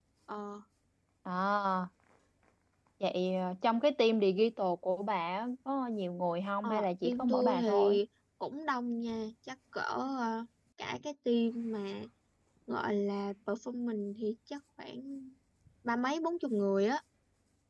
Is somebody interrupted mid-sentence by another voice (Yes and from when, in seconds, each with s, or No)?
Yes, from 6.6 s